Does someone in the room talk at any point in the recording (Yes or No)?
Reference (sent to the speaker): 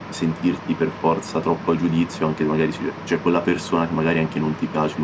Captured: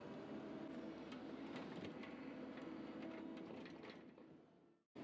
No